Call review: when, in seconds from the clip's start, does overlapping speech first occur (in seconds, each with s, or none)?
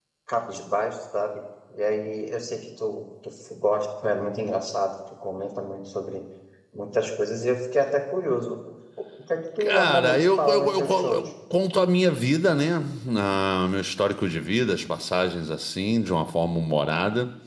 9.6 s